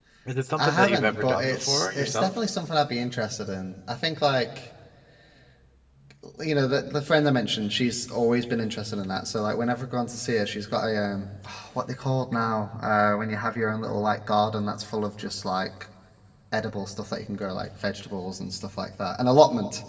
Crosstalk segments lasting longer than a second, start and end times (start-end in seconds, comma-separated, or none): 0.6-2.4